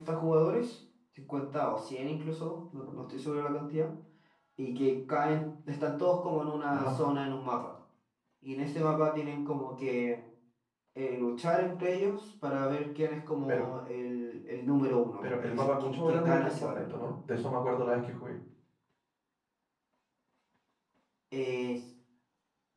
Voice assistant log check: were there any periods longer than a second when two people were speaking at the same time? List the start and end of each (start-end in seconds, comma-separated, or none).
15.2-17.1